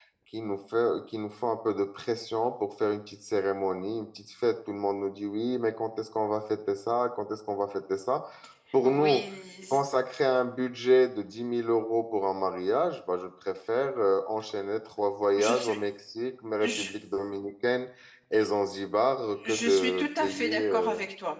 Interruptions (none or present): present